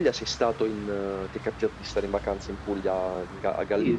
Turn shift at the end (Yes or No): Yes